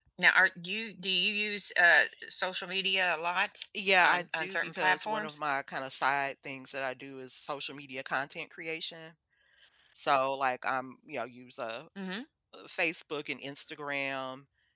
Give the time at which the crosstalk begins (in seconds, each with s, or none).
3.7 s